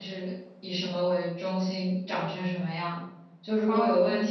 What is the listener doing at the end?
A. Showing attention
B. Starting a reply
A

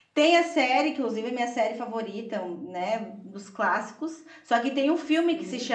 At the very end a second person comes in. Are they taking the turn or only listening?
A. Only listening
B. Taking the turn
A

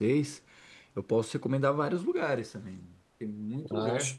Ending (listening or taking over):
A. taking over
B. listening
B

